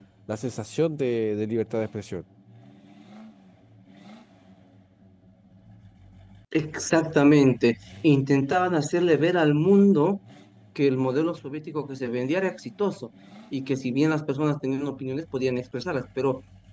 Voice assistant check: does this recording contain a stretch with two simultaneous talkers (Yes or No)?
No